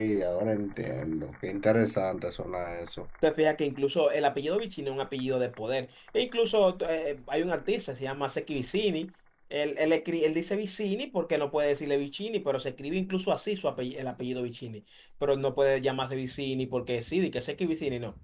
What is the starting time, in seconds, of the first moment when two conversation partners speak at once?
none

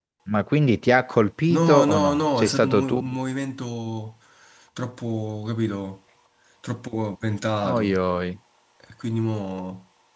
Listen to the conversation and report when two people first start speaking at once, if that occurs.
1.5 s

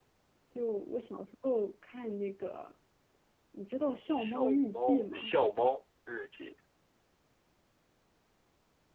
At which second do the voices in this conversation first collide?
4.1 s

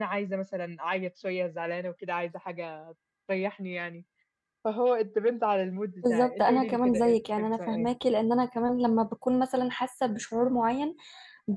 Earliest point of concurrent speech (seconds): 6.0 s

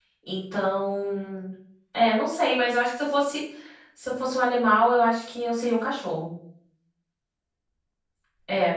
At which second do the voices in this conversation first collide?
none

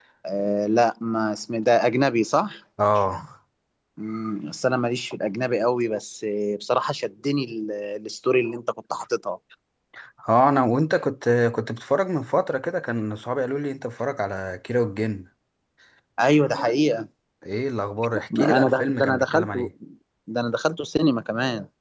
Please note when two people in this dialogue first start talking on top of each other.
18.4 s

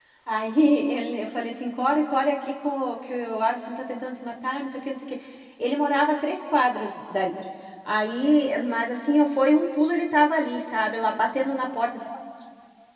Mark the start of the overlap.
none

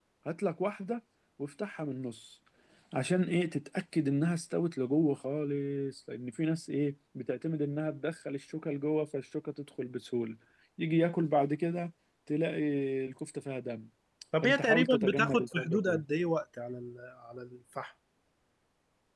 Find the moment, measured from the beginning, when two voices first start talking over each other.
14.4 s

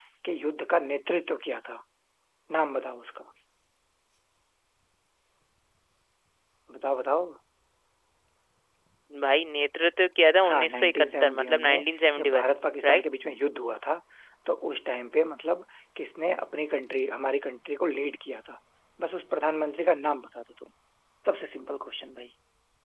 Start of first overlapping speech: 10.4 s

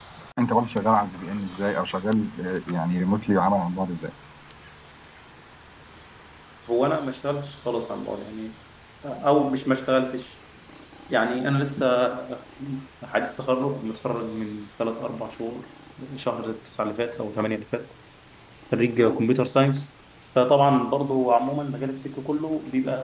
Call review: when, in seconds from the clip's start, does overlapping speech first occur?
none

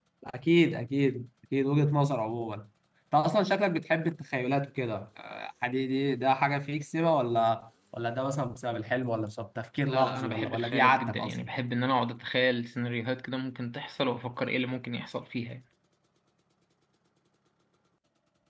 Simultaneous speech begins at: 9.8 s

